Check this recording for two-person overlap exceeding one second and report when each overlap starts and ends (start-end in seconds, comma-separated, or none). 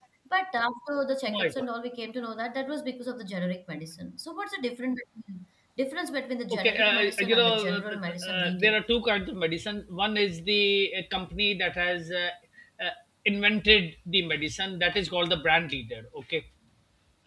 6.5-8.8